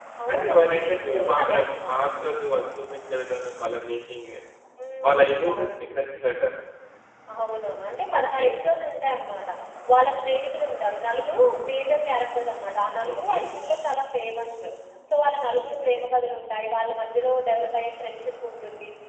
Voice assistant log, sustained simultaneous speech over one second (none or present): present